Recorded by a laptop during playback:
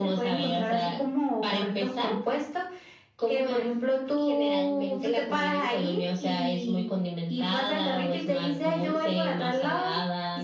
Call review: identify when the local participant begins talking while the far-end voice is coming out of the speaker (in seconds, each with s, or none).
none